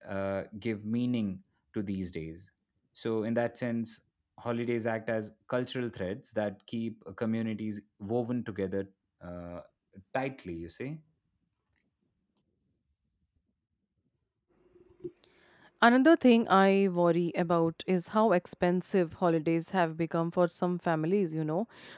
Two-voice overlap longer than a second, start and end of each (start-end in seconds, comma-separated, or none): none